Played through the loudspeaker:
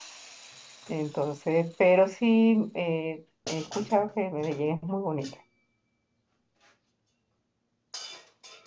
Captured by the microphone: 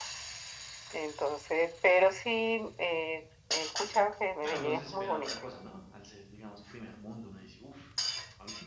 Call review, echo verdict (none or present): present